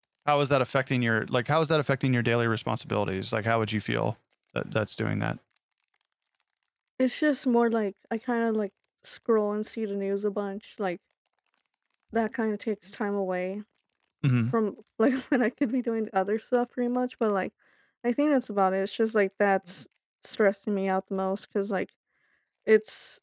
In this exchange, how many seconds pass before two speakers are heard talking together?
none

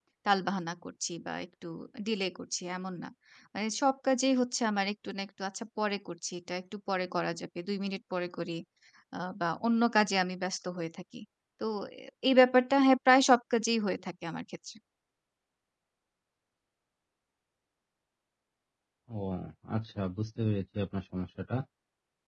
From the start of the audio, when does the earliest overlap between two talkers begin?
none

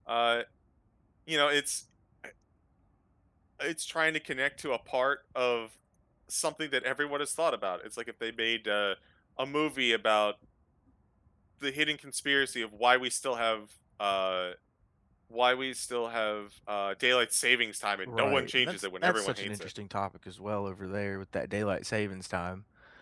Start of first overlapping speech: 18.1 s

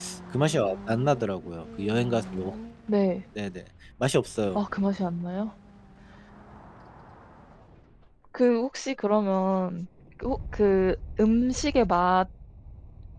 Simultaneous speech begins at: none

